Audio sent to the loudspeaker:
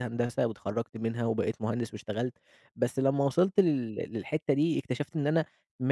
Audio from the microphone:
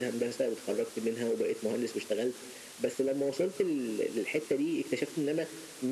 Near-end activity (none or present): none